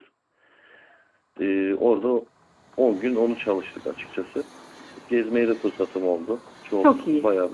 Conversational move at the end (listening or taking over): listening